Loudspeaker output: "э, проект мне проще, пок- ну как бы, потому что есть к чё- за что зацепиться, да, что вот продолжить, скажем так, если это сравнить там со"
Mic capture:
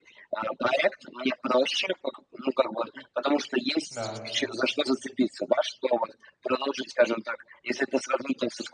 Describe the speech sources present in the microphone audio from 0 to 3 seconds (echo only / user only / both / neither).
echo only